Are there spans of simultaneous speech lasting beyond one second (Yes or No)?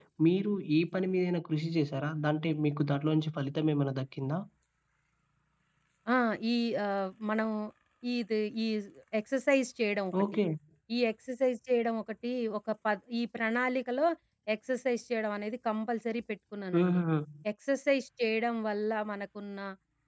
No